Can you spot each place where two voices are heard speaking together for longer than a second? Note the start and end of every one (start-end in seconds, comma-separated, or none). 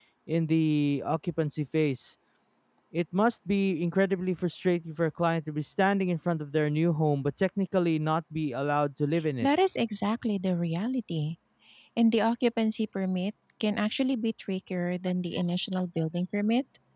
none